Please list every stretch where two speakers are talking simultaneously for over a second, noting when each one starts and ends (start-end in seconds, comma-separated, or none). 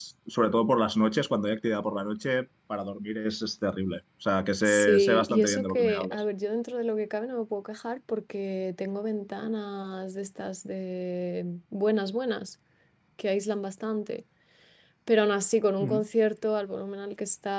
4.7-6.2